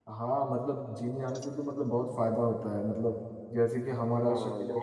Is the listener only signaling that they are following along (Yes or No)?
Yes